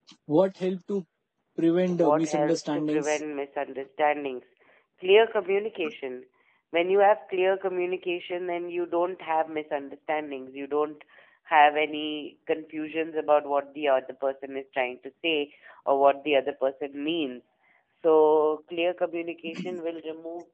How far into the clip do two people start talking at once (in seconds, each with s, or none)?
1.9 s